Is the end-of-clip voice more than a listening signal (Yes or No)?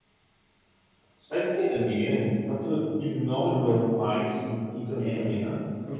Yes